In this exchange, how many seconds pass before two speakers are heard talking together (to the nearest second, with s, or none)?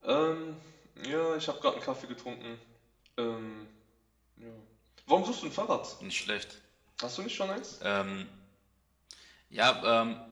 none